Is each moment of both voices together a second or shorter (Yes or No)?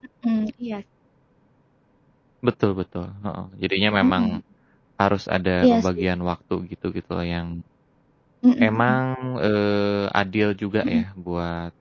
Yes